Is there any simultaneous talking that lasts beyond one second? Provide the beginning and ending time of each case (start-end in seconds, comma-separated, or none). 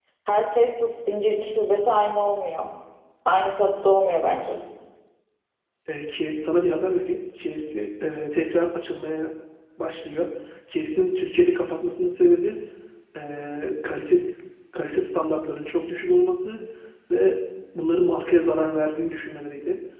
none